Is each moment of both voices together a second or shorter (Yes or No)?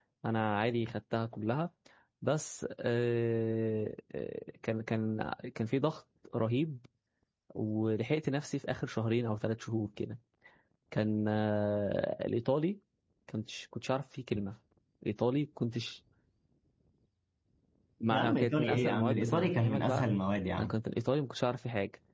No